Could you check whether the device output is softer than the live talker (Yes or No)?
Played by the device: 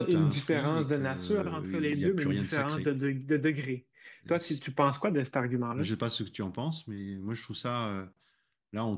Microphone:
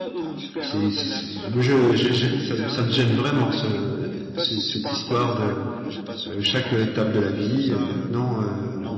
Yes